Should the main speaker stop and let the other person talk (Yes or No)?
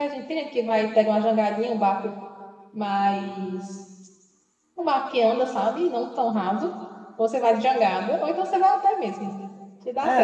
Yes